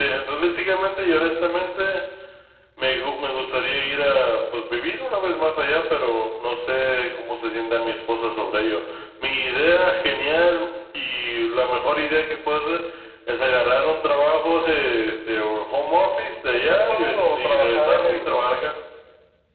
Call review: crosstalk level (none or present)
present